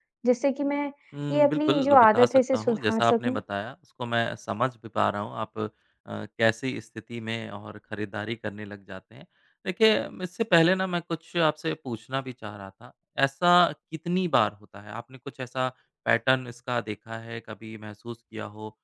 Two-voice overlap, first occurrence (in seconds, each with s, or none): 1.3 s